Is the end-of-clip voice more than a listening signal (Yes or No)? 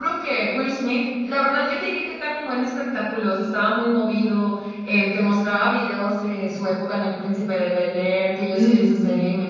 No